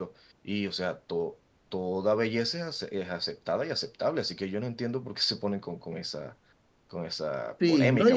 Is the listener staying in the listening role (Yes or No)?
No